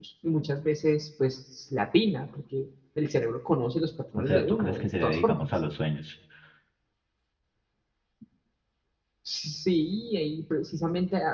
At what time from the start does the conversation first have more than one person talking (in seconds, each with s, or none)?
4.2 s